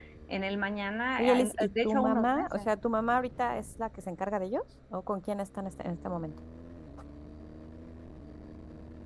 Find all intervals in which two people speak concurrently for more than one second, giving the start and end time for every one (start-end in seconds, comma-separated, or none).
1.2-2.7